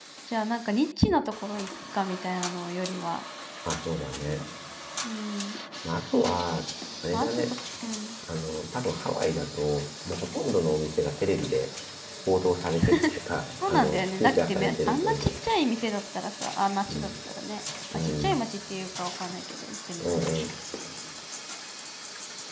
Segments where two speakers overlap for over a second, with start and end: 13.7-15.3

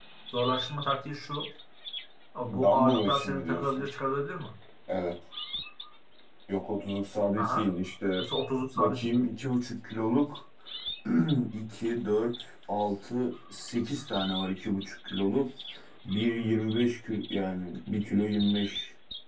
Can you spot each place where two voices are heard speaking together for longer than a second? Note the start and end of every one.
2.6-3.8

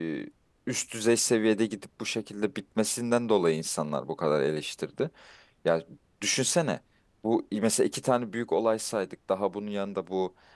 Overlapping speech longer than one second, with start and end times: none

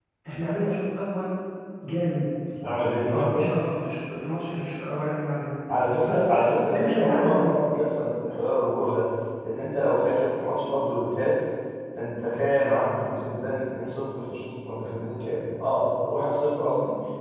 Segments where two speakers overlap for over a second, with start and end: 6.0-7.6

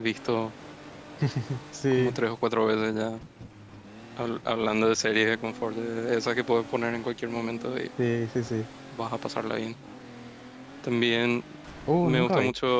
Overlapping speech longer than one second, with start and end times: none

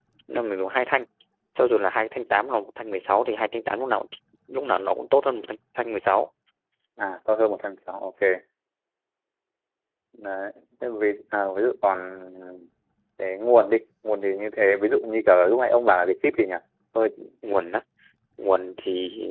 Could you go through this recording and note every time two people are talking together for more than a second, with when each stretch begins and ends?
none

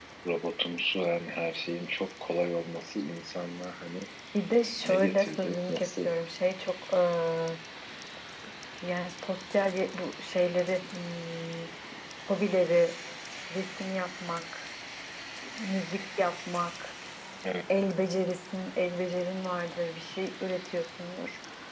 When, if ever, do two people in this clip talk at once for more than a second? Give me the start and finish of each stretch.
4.8-6.1

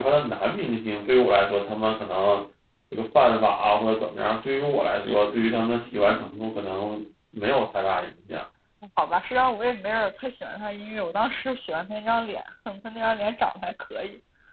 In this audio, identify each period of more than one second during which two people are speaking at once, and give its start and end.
none

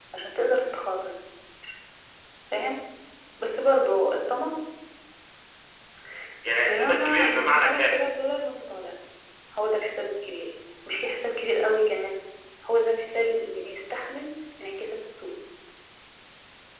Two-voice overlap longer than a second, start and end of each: 6.7-8.0

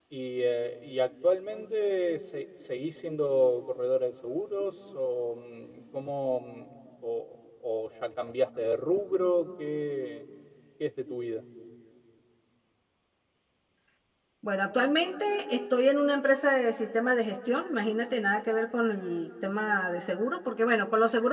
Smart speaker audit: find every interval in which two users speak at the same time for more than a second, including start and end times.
none

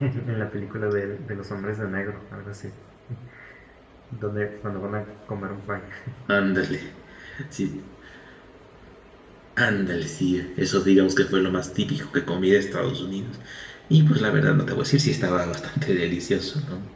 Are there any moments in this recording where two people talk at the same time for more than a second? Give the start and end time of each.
none

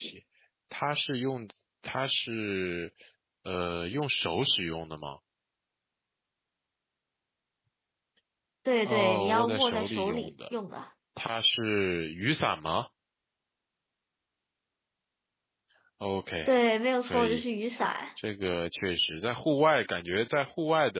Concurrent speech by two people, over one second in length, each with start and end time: 8.8-10.3

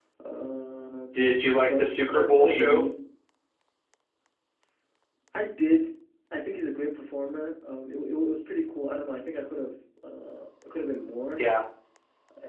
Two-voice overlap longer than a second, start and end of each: 1.6-2.8

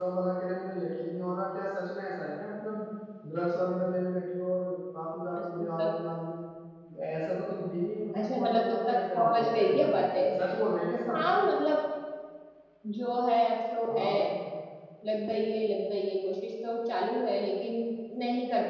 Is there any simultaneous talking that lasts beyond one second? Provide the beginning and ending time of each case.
8.2-9.9

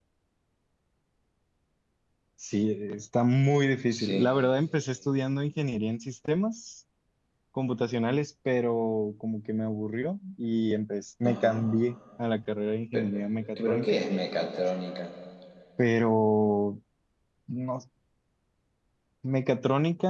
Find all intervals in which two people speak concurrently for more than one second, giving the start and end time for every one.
none

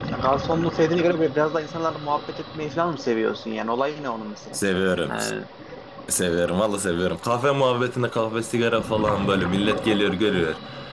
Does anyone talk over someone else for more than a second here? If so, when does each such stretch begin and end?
none

